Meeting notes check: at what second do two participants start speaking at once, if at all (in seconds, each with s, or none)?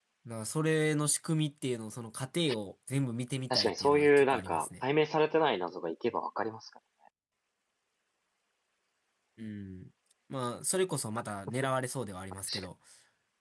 3.5 s